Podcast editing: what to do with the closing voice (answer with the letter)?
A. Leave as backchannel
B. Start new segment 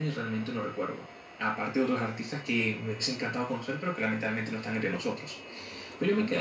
A